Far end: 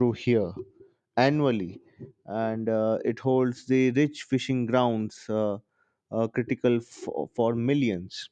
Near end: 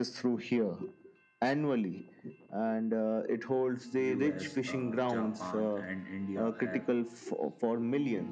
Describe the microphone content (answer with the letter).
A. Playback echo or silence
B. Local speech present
B